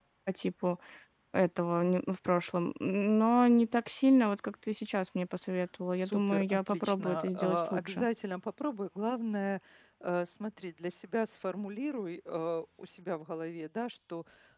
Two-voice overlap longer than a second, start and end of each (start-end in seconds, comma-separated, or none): 6.0-8.0